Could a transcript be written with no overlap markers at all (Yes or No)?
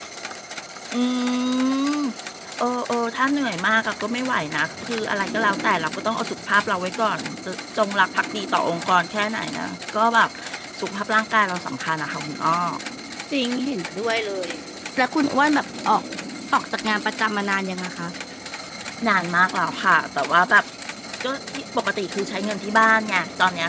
Yes